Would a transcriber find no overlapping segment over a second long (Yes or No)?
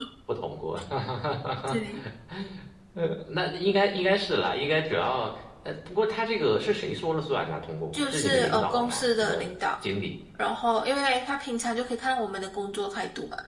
No